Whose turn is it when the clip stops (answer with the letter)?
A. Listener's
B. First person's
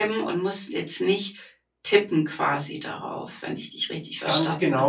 A